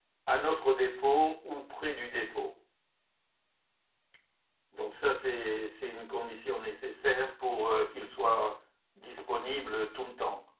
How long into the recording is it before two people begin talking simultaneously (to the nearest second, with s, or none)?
none